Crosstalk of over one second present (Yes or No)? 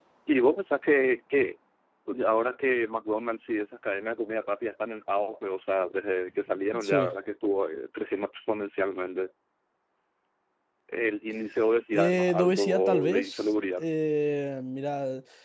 Yes